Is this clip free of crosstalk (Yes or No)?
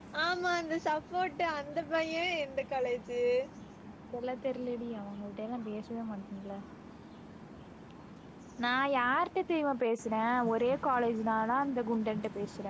Yes